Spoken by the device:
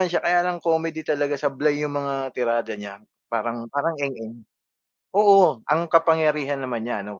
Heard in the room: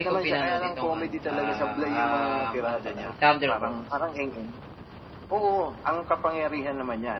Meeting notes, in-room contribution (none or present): present